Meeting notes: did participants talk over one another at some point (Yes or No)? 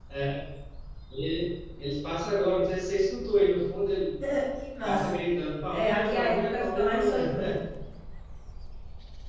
Yes